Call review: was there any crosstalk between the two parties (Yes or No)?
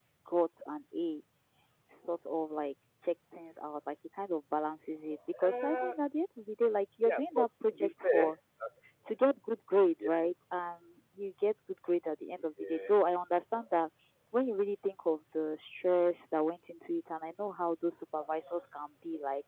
Yes